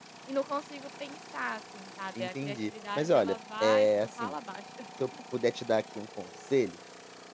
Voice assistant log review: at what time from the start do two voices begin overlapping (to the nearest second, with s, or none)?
2 s